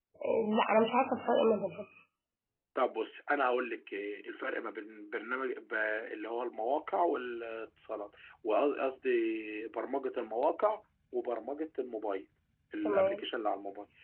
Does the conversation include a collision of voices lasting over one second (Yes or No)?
No